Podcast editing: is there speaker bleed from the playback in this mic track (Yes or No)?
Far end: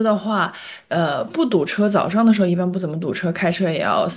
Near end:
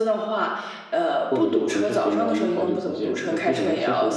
Yes